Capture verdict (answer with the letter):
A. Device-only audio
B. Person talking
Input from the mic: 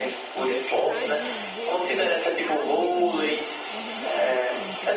B